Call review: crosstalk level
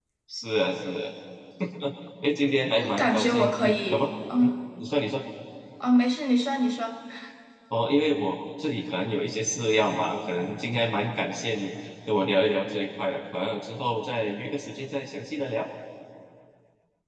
present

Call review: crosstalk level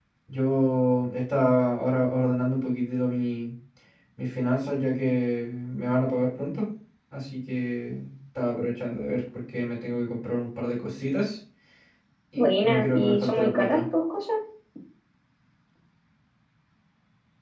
present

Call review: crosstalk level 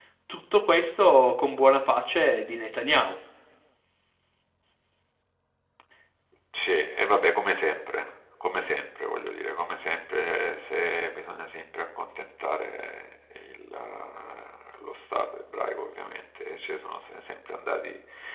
none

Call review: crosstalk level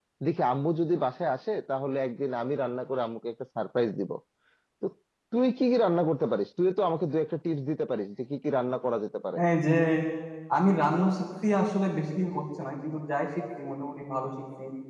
none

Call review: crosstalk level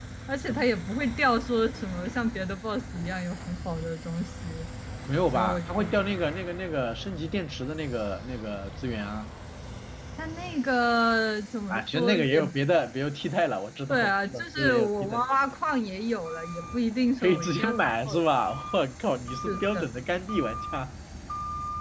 present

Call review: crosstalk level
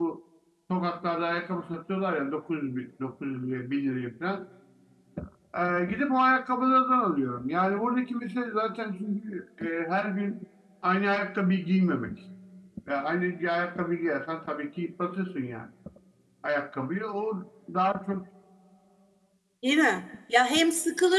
none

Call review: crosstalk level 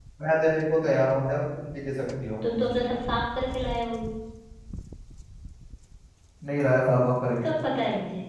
none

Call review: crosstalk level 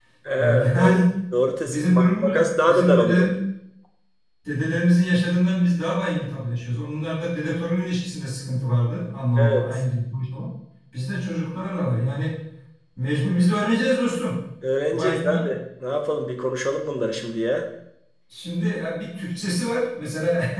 present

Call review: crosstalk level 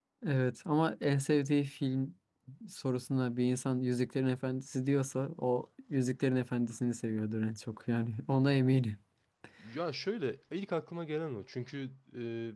none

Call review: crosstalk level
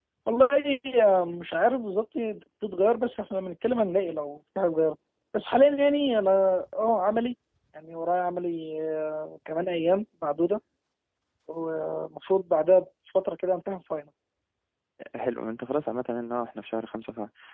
none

